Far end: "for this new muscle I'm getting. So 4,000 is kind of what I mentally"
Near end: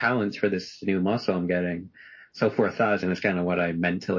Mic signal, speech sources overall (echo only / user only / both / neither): echo only